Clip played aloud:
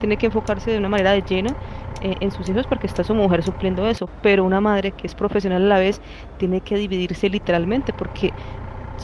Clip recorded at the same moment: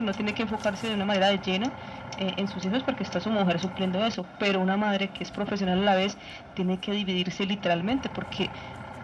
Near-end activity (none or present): none